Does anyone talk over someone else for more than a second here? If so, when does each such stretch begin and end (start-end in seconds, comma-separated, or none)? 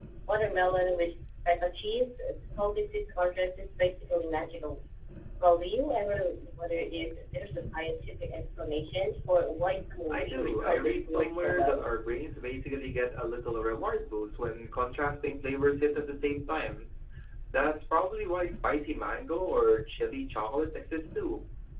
10.1-11.9